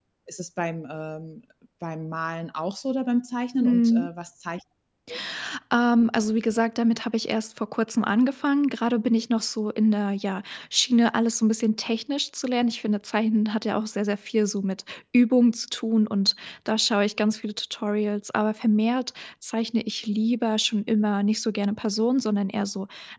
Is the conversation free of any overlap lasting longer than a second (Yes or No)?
Yes